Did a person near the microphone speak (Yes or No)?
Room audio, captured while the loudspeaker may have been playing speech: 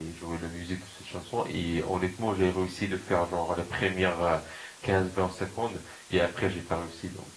Yes